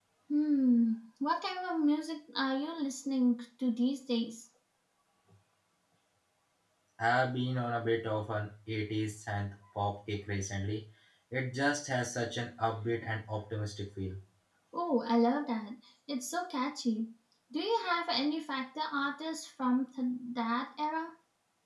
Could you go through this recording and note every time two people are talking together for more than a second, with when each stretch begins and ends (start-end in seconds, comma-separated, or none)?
none